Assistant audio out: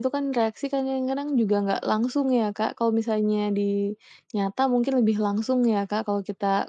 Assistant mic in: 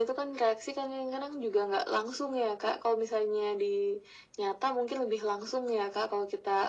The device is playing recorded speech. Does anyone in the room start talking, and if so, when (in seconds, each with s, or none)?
none